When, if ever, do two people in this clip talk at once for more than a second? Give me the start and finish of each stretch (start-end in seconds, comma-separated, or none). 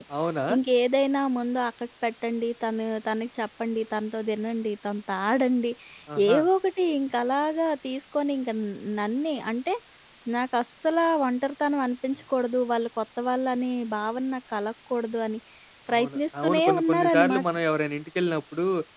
15.9-17.4